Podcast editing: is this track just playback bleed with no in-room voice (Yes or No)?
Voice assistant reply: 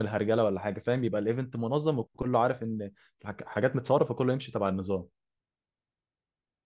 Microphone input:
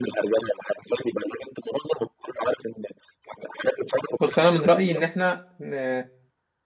No